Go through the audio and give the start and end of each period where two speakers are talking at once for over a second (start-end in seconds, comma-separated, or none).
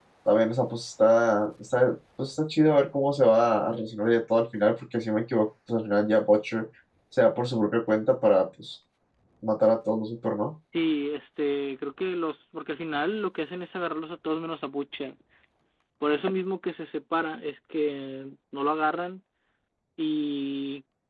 none